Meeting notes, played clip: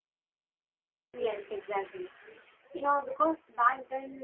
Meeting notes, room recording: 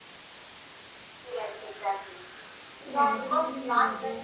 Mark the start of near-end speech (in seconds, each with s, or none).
2.9 s